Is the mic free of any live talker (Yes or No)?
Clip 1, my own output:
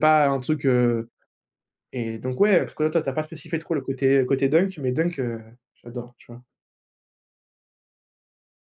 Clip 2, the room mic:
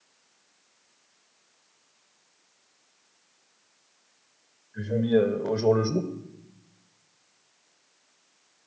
No